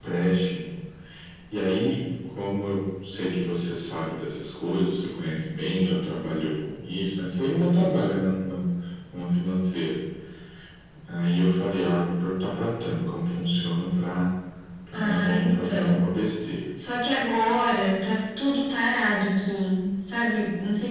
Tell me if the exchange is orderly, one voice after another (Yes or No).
No